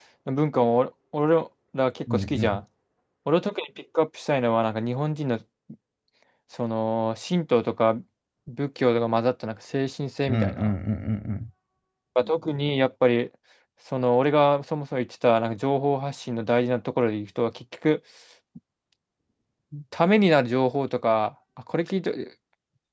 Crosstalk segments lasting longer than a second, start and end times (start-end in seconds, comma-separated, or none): none